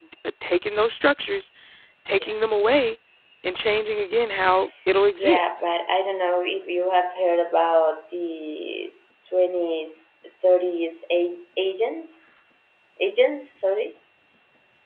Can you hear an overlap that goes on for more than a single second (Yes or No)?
No